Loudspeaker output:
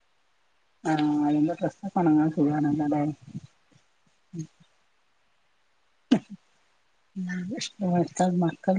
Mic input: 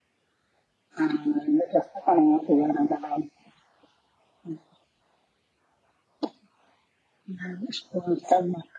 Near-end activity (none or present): none